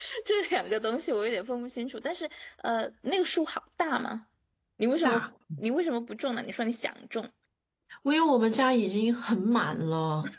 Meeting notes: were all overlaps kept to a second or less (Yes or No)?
Yes